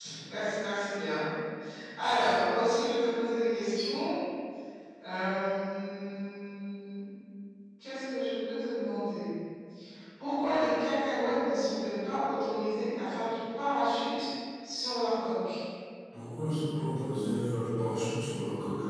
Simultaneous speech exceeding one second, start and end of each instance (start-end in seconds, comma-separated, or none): none